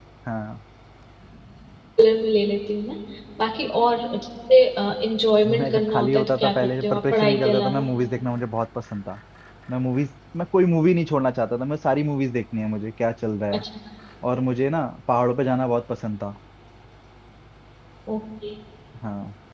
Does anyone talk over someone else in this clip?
Yes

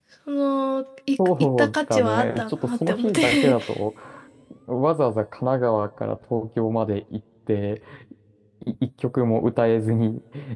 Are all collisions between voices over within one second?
No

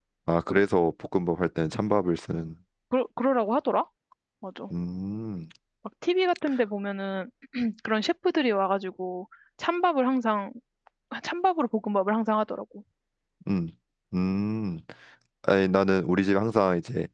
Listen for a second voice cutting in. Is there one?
No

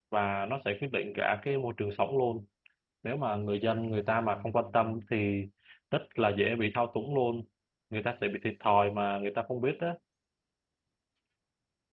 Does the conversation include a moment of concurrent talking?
No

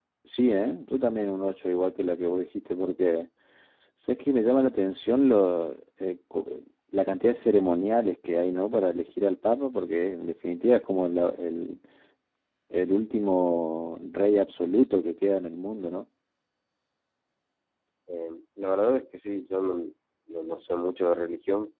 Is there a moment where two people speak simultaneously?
No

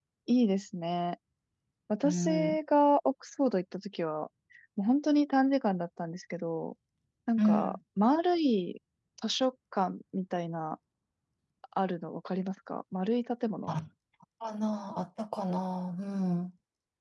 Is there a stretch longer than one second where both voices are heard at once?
No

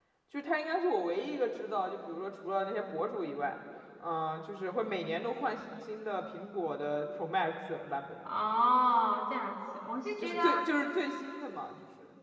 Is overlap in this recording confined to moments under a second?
Yes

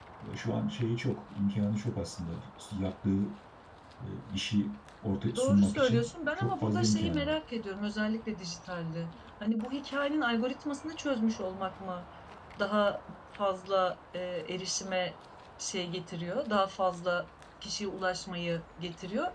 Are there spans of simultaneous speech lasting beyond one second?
Yes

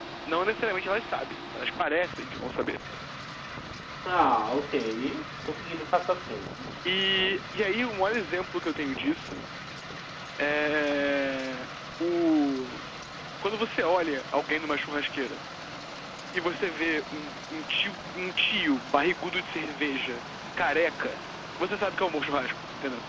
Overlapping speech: No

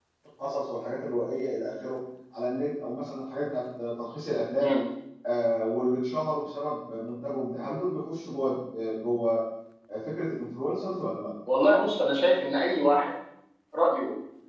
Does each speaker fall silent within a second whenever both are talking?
Yes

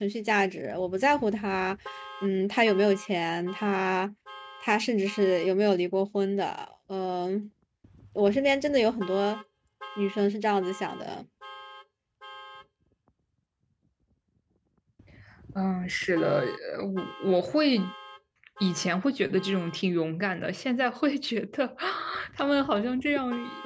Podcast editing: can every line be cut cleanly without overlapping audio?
Yes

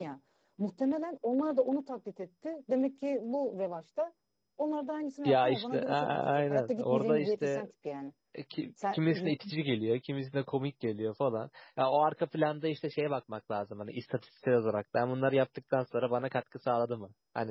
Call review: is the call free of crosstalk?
No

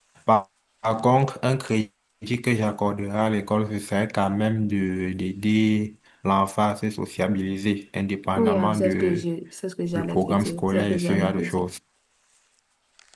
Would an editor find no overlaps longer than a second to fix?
No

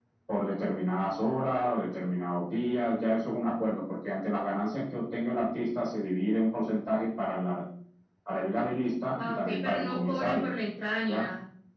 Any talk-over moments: Yes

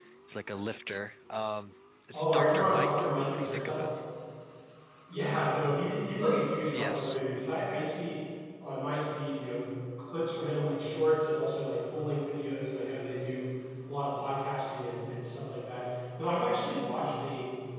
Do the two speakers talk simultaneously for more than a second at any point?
Yes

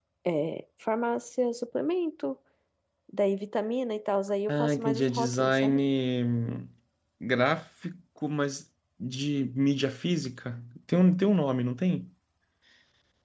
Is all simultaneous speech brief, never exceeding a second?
No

